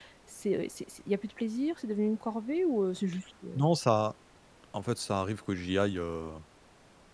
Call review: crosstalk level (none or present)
none